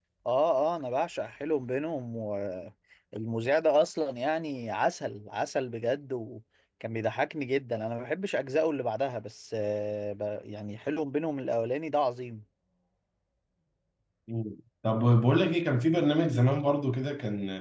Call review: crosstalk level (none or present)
none